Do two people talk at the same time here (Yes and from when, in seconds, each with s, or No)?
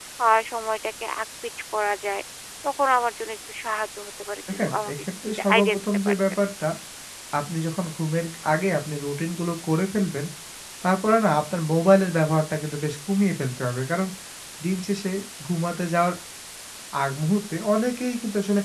Yes, from 4.5 s